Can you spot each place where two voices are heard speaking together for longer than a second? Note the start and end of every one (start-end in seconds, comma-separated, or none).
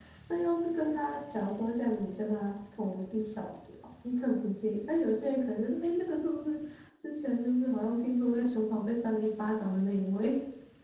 none